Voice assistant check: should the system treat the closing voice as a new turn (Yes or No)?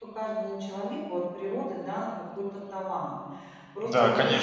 Yes